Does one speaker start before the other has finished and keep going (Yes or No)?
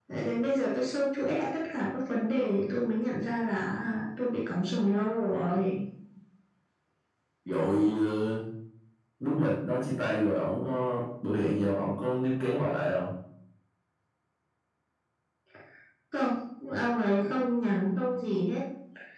No